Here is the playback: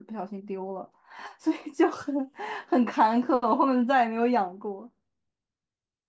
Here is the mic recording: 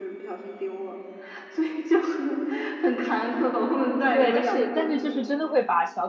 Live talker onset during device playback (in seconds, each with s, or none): 4.1 s